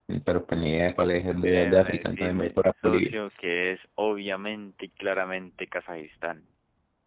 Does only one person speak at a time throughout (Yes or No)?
No